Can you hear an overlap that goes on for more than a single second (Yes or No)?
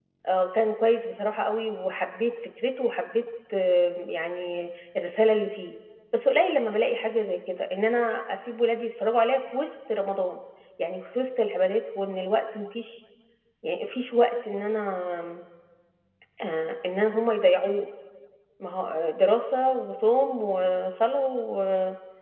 No